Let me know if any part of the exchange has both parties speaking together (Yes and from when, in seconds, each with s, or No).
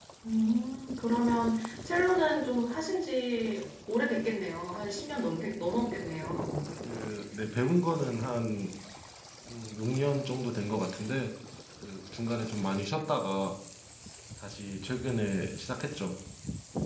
No